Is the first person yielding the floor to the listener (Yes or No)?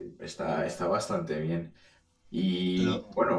No